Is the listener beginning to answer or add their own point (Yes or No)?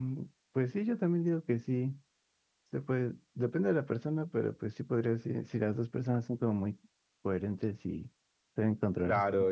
Yes